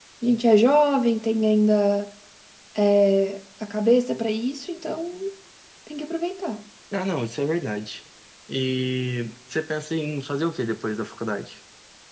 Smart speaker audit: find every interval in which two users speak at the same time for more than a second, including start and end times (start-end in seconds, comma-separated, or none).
none